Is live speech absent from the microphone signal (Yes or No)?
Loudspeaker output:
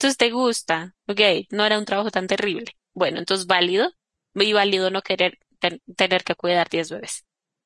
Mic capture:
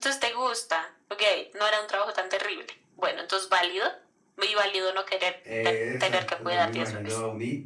No